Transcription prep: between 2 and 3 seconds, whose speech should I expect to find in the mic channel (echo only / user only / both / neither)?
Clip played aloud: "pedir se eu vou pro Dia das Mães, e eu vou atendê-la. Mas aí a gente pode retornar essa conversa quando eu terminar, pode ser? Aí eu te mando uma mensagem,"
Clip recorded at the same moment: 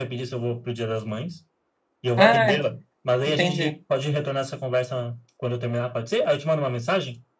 both